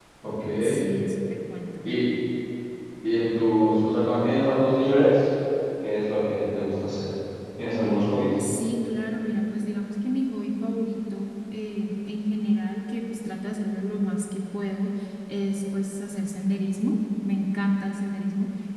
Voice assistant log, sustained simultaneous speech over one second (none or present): none